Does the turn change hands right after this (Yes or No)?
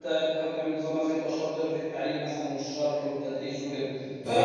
No